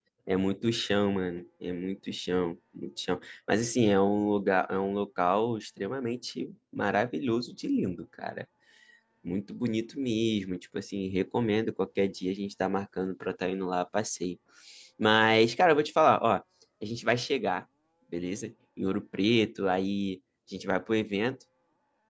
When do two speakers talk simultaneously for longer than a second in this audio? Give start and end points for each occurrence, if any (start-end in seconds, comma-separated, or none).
none